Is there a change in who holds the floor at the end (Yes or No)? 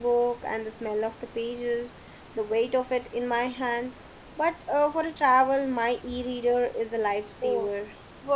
Yes